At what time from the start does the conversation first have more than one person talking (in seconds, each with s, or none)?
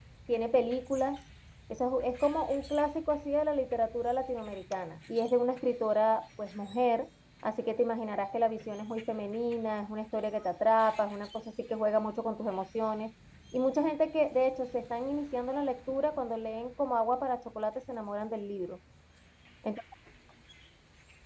none